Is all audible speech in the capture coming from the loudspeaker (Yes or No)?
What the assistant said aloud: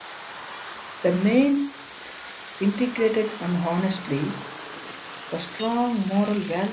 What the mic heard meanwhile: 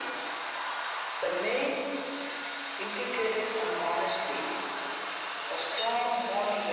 Yes